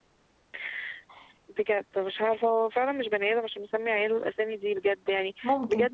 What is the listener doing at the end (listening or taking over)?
listening